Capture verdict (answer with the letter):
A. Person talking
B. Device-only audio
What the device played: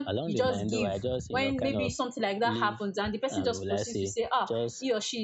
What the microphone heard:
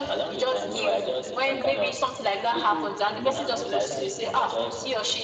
A